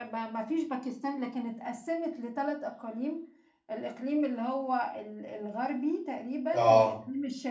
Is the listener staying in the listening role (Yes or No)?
Yes